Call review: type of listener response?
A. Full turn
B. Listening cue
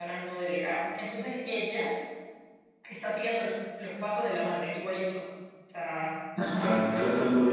A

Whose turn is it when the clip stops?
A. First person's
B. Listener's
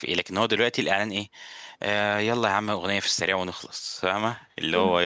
B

